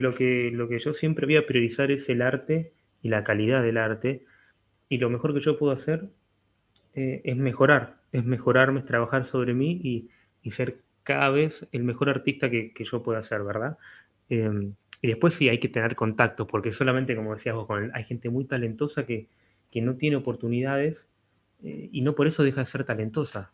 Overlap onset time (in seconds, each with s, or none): none